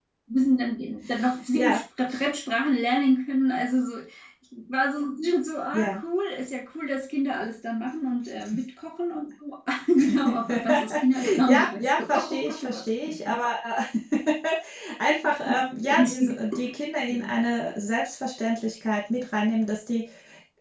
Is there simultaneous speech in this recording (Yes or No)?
Yes